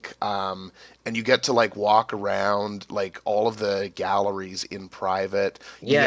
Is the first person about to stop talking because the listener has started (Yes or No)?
Yes